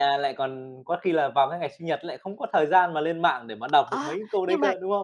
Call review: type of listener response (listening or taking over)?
taking over